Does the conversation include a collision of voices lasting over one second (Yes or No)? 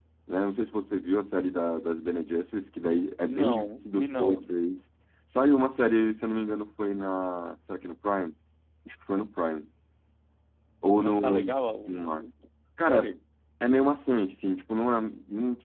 Yes